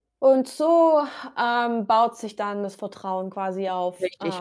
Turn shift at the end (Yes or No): Yes